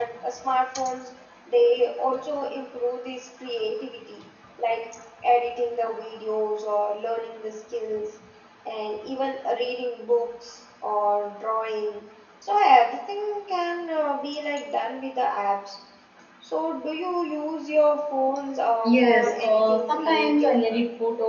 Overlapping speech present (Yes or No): Yes